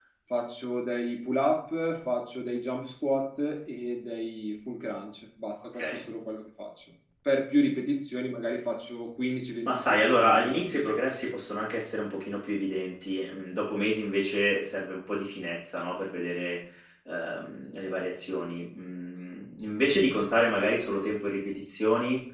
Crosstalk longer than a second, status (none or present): present